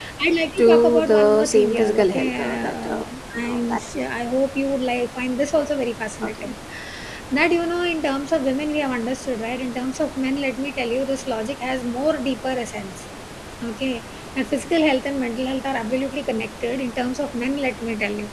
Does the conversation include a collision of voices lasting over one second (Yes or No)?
Yes